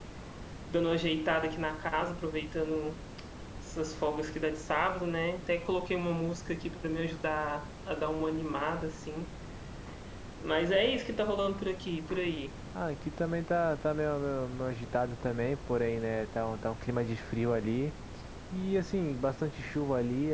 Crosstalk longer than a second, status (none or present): none